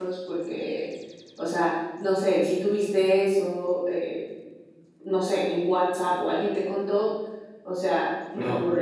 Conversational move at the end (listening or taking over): listening